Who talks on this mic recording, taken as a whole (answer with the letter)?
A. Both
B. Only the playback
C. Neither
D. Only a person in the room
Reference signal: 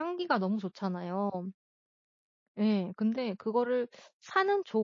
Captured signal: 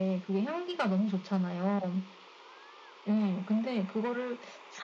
B